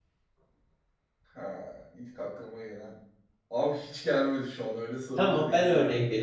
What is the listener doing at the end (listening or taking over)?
taking over